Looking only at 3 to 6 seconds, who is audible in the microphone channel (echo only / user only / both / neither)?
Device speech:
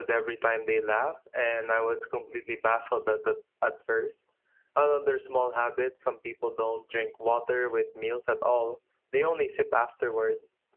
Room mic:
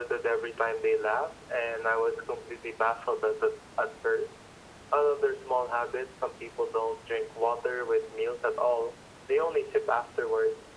echo only